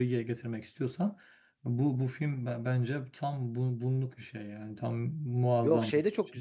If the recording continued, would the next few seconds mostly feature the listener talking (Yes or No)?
Yes